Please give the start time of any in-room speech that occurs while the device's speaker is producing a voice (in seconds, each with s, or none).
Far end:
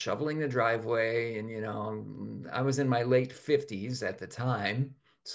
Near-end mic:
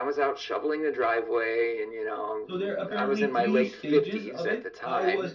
2.5 s